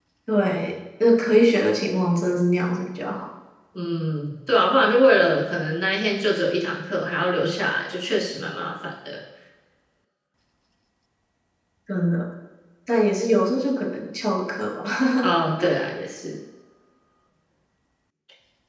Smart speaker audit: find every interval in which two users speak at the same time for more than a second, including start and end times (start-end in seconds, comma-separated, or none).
none